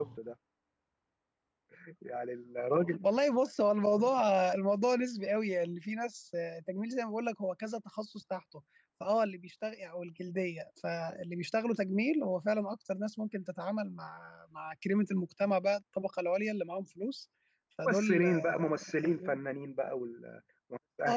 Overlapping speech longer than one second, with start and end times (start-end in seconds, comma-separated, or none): 17.9-19.4